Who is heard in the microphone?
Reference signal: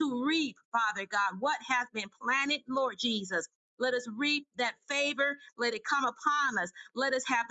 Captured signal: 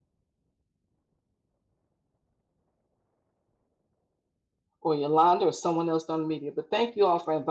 user only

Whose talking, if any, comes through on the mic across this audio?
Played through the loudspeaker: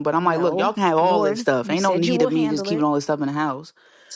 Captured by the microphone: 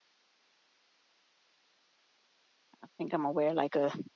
user only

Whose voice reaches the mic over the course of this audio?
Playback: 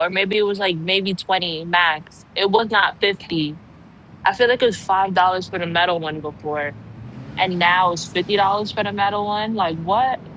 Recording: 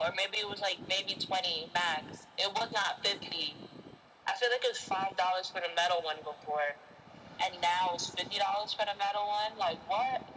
echo only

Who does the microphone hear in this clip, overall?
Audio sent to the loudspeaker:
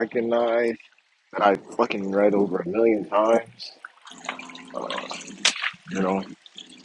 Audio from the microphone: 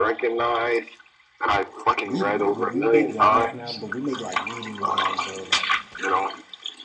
both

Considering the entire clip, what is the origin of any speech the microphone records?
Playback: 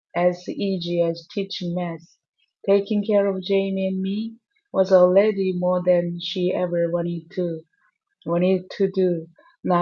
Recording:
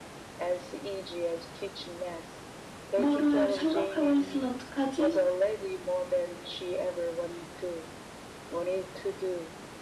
both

